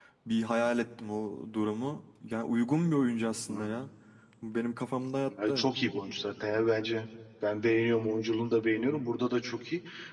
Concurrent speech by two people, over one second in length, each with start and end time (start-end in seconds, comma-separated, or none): none